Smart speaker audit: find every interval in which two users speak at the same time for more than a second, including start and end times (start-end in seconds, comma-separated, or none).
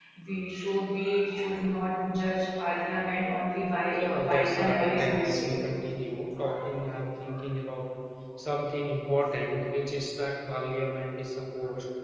3.9-5.5